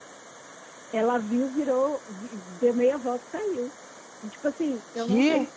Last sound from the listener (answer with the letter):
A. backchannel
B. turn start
A